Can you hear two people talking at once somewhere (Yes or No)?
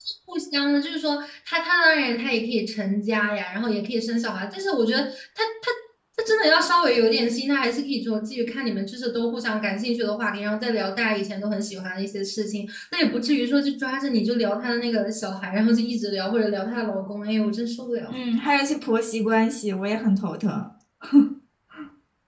No